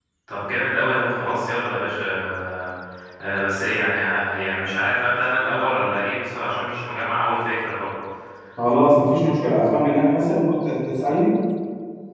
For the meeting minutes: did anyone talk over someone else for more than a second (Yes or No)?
No